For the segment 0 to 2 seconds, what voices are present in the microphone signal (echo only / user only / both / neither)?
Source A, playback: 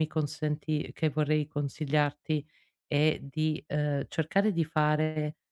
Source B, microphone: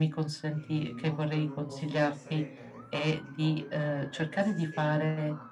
both